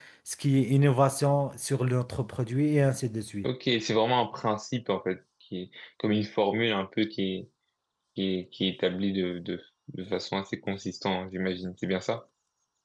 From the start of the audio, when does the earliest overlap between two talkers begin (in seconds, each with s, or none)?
none